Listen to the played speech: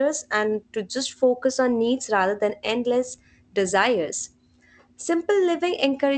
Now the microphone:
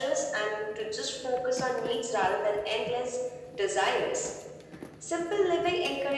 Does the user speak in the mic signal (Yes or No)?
No